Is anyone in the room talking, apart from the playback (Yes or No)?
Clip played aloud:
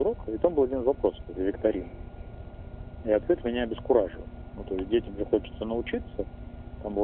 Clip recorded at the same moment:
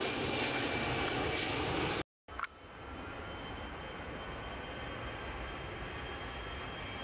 No